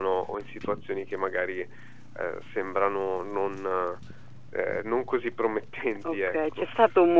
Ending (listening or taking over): taking over